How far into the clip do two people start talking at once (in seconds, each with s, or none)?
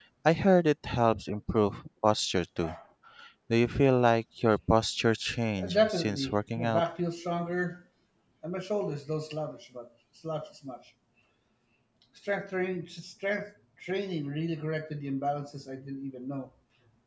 5.6 s